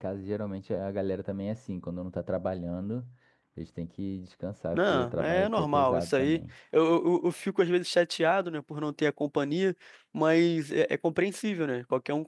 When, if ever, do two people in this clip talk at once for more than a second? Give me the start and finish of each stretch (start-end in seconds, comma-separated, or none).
4.7-6.4